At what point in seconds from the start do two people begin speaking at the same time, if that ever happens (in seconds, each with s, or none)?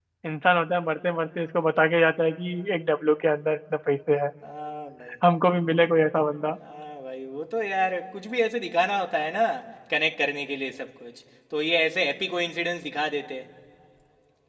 none